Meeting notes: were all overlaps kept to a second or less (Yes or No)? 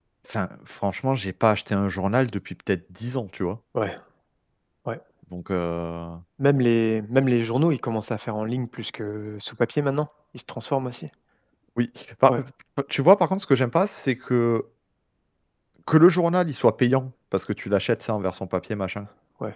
Yes